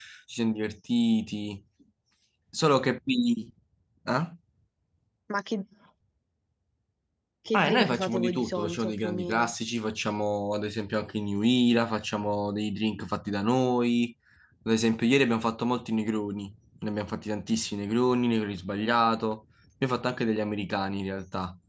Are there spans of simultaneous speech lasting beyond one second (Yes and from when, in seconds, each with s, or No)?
Yes, from 7.6 s